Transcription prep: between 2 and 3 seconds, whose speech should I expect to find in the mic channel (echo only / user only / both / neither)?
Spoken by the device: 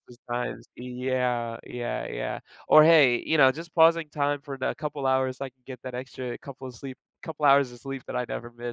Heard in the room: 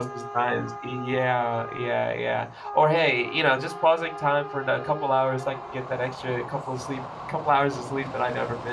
echo only